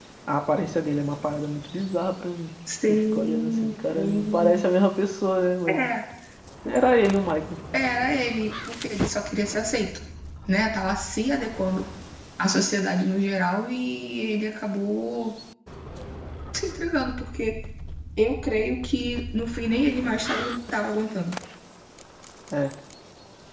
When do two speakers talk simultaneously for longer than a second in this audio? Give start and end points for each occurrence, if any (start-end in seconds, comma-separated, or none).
2.9-4.6